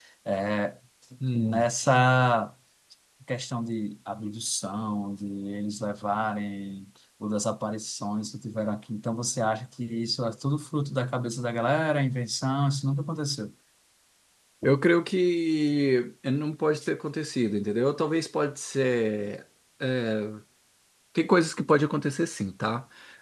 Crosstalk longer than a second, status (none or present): none